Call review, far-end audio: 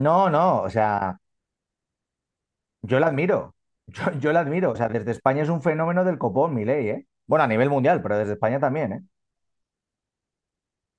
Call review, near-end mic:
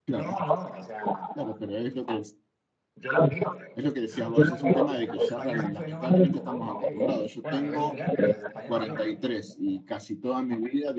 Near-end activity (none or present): present